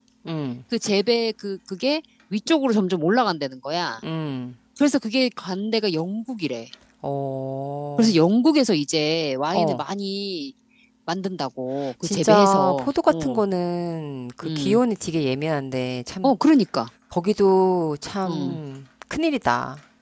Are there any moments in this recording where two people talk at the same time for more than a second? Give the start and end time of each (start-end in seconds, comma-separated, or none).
12.0-13.4